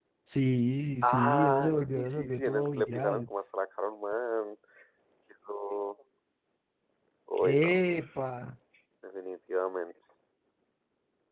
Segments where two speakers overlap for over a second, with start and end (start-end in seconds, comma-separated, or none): 1.0-3.3